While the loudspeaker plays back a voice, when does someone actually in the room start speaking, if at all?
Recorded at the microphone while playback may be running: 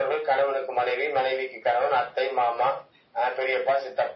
none

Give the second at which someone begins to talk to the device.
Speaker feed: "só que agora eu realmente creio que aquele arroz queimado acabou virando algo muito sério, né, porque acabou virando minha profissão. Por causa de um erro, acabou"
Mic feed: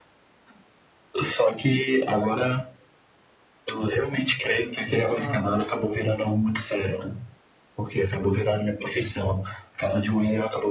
5.1 s

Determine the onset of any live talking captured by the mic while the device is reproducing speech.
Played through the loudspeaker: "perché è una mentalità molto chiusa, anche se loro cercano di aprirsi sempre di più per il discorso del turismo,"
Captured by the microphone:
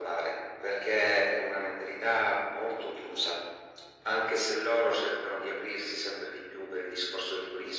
none

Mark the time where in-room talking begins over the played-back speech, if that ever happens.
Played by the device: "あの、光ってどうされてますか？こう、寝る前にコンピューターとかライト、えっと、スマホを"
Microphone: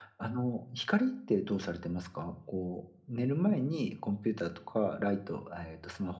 none

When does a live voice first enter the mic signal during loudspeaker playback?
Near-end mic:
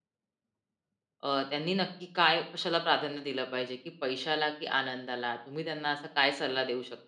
1.2 s

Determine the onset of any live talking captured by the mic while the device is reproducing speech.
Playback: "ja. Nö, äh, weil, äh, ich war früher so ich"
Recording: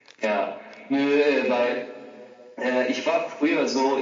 none

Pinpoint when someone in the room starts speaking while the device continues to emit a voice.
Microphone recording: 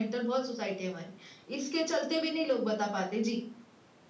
none

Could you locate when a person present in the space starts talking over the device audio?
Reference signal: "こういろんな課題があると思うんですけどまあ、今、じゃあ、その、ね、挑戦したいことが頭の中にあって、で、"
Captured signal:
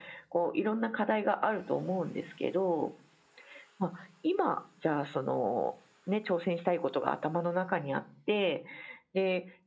none

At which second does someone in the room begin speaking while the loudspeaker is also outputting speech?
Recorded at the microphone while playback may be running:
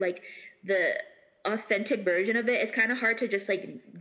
none

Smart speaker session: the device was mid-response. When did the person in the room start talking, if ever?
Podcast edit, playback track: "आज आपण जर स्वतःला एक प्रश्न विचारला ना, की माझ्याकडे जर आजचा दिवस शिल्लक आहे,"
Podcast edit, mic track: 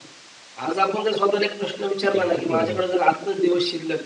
2.2 s

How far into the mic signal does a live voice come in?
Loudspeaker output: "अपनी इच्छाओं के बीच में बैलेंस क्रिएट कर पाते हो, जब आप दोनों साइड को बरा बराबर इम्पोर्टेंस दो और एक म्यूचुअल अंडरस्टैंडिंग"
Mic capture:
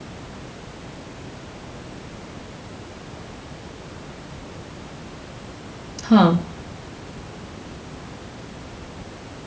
6.0 s

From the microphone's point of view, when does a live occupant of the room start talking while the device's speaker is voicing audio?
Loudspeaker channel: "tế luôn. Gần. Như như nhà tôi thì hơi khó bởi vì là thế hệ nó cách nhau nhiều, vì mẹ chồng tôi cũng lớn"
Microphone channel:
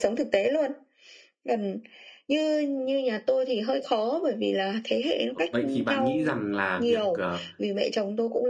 5.3 s

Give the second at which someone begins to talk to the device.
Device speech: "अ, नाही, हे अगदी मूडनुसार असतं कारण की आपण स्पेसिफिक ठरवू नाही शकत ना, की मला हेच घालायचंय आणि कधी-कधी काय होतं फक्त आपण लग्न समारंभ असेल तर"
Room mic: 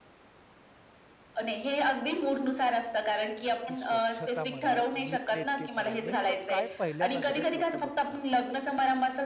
3.7 s

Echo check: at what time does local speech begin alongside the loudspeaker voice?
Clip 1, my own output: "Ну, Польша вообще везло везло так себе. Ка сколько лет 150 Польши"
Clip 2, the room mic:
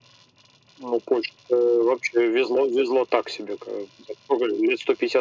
none

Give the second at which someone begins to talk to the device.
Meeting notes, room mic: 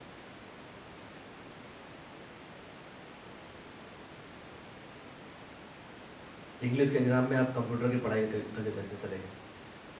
6.7 s

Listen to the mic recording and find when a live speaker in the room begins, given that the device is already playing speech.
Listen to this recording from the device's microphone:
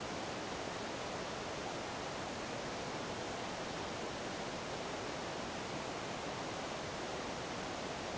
none

